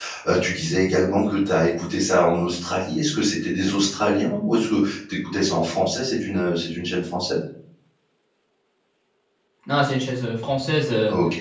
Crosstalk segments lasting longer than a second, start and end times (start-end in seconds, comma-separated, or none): none